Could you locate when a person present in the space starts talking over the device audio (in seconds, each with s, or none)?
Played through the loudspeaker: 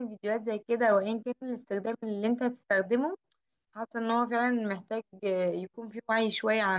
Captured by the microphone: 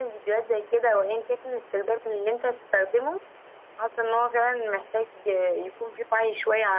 none